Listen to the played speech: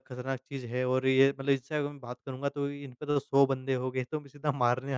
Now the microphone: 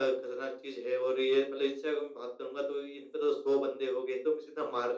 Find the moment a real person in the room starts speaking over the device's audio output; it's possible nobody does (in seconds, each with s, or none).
none